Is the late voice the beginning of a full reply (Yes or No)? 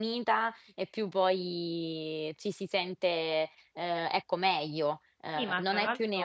Yes